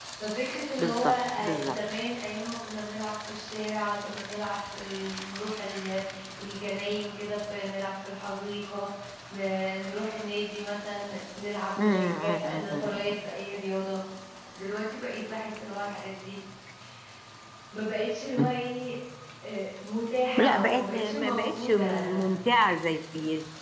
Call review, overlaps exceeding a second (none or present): present